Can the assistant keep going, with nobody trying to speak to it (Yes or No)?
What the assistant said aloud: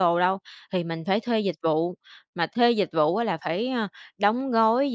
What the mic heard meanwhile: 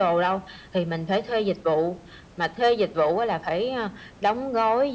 Yes